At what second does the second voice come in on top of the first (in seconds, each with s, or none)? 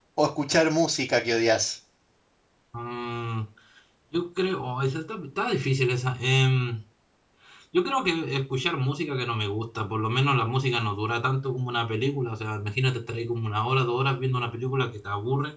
none